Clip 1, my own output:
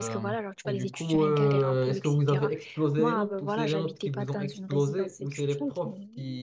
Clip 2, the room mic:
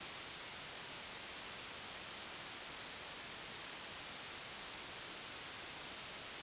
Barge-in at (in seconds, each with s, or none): none